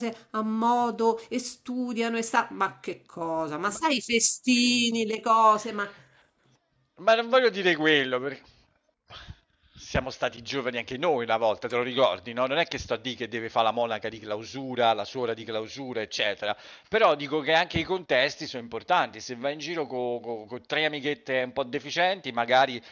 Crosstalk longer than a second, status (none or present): none